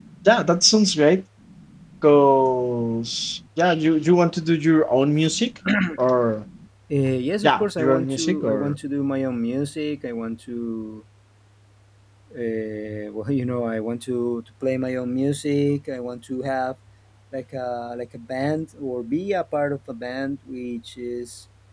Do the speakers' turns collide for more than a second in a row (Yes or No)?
Yes